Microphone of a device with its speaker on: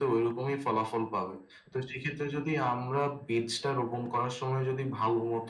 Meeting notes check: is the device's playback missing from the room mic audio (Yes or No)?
No